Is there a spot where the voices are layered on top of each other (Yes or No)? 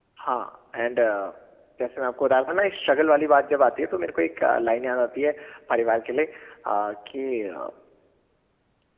No